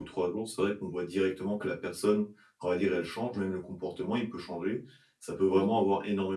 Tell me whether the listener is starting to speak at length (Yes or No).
No